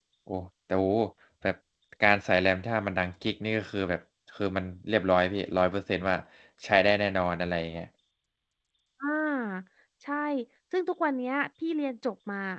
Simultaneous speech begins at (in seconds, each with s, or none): none